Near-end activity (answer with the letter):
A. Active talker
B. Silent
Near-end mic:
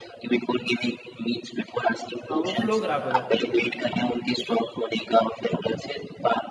A